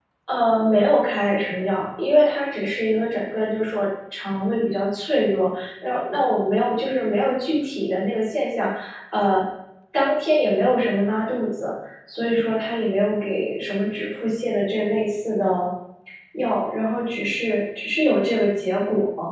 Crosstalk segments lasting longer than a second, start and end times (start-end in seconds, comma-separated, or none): none